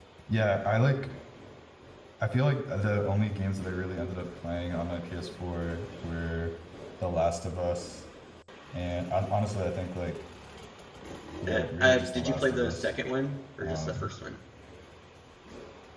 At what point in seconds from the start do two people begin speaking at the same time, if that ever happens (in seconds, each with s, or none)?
11.5 s